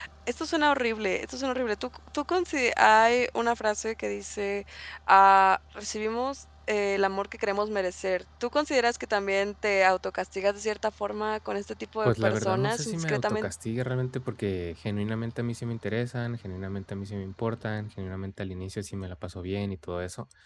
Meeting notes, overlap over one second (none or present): present